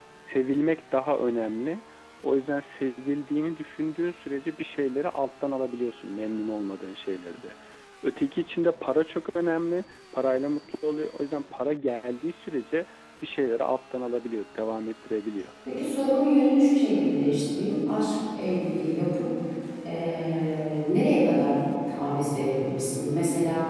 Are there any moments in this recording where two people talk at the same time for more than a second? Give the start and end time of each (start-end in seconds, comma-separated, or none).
none